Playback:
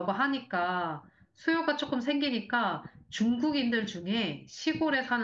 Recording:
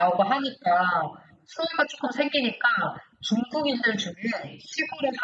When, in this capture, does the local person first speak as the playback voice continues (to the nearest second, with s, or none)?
none